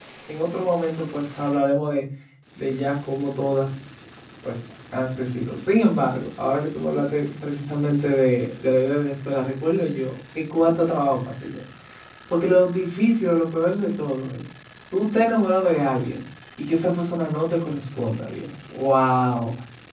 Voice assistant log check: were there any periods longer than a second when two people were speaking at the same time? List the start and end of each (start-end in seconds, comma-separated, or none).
none